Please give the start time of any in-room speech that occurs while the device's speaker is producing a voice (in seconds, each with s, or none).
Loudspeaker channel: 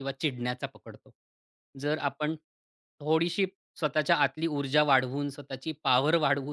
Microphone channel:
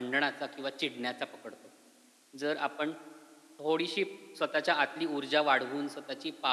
none